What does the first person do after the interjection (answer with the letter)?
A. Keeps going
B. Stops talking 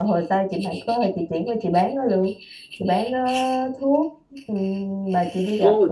B